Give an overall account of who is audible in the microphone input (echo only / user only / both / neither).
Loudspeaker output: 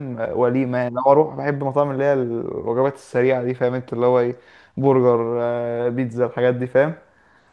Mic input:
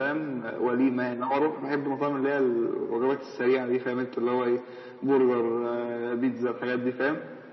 echo only